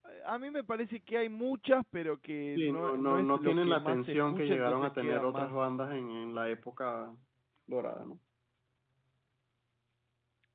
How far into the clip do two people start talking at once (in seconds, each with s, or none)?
2.5 s